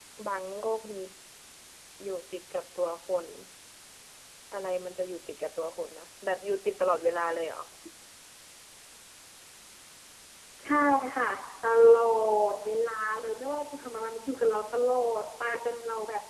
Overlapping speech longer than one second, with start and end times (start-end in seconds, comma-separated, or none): none